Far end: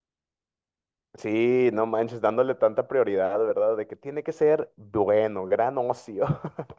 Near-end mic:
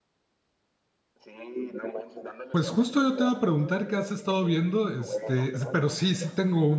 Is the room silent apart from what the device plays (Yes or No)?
No